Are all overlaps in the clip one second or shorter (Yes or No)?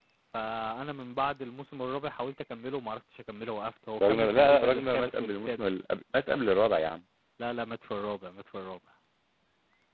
No